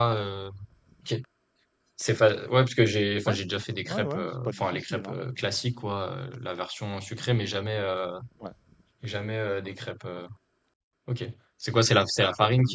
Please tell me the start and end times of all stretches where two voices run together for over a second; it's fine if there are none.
3.9-5.2

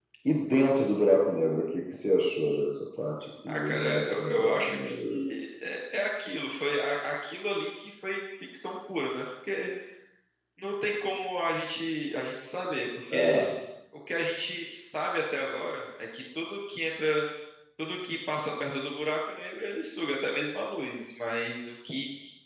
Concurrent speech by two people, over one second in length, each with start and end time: 3.5-5.2

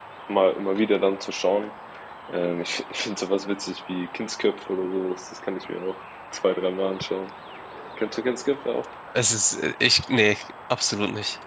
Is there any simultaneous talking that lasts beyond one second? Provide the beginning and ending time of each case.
none

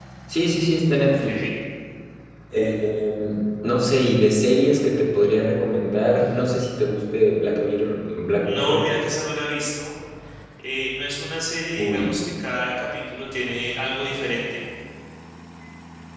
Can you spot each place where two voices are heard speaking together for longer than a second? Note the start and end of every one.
none

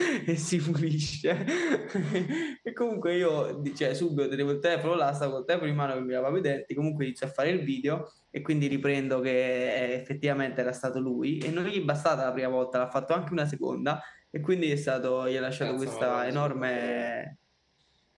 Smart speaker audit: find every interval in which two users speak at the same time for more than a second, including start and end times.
15.6-17.1

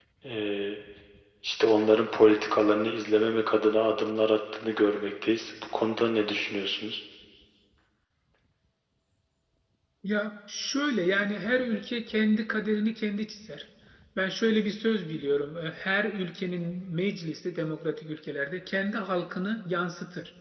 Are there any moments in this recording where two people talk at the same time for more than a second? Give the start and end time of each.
none

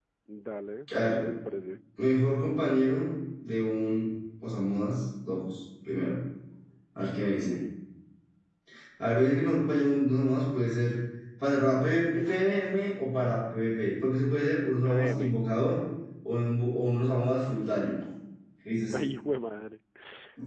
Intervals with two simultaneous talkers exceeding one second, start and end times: none

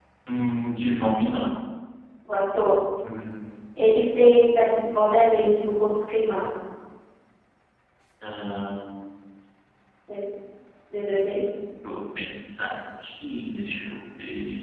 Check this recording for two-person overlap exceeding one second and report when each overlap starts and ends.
none

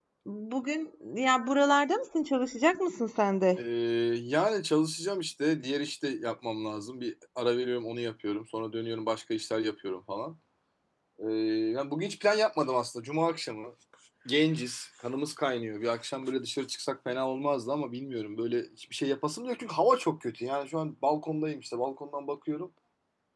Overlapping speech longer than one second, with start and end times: none

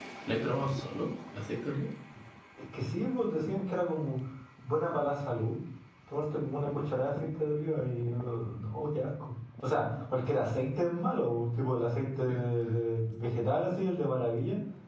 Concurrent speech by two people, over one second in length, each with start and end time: none

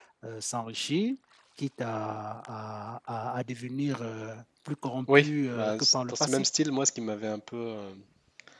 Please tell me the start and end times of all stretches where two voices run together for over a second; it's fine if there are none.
5.2-6.5

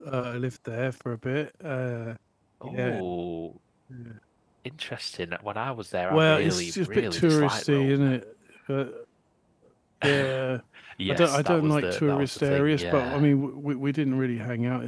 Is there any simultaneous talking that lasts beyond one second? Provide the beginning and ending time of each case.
6.1-8.1, 11.1-13.3

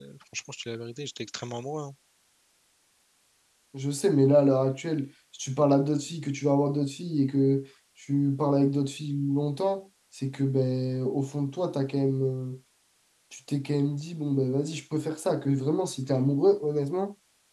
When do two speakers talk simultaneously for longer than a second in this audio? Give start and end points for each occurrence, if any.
none

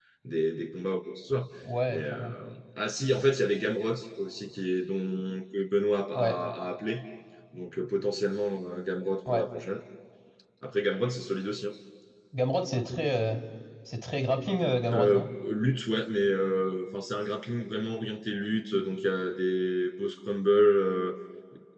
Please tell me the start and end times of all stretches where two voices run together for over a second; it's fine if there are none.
none

